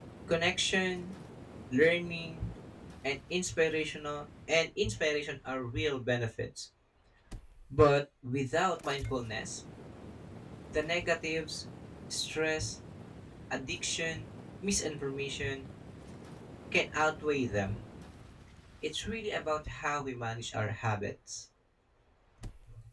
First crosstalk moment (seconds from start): none

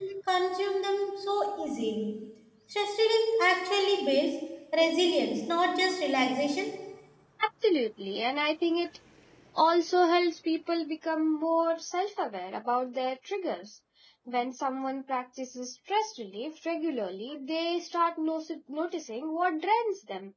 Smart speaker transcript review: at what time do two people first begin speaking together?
none

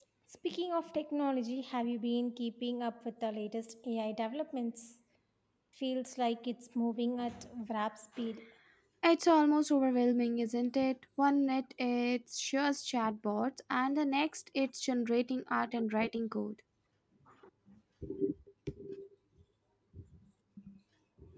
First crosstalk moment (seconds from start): none

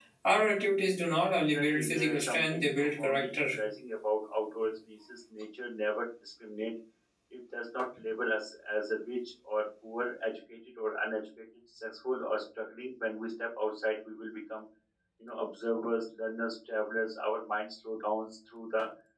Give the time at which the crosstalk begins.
1.5 s

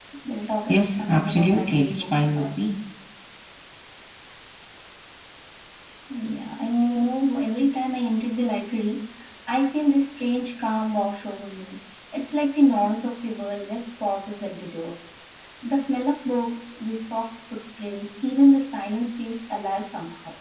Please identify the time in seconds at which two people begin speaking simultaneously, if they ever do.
0.7 s

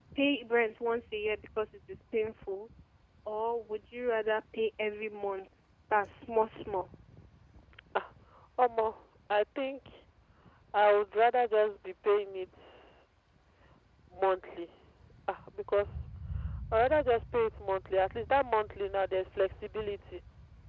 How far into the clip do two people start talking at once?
none

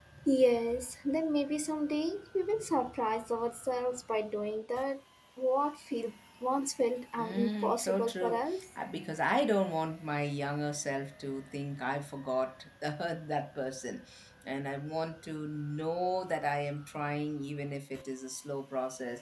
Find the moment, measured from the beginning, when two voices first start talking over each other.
7.2 s

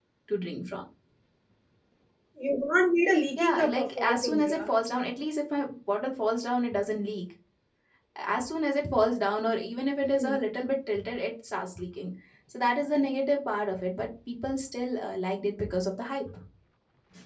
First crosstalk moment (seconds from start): 3.4 s

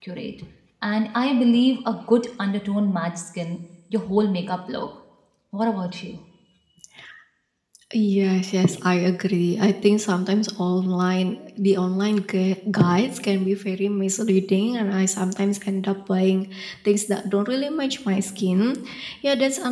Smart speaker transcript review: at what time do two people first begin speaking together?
none

